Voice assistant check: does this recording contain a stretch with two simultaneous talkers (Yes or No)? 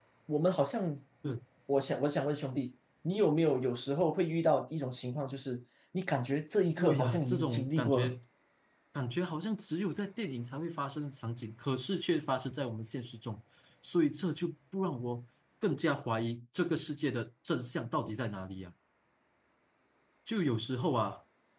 Yes